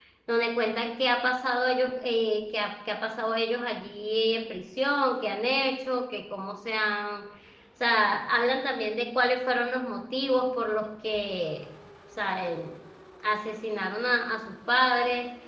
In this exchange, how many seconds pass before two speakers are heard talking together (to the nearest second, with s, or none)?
none